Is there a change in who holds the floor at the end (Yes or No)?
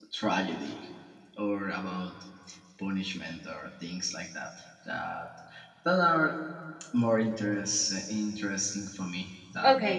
Yes